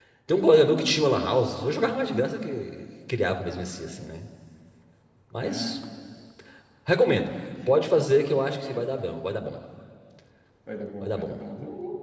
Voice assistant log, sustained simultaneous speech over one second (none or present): none